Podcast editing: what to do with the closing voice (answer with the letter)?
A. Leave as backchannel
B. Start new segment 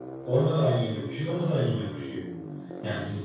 A